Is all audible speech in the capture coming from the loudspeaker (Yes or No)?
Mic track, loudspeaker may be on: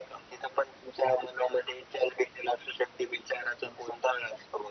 Yes